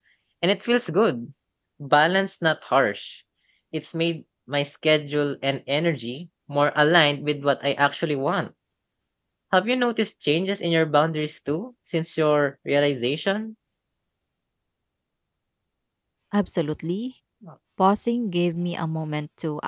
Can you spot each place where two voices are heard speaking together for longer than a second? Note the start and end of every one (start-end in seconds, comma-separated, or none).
none